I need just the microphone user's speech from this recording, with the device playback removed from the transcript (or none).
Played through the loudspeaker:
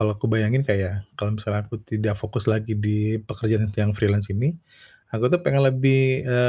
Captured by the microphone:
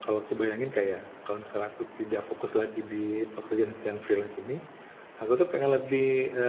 none